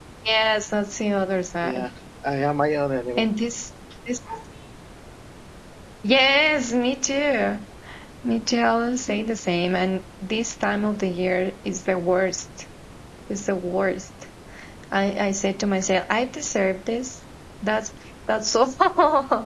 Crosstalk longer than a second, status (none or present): none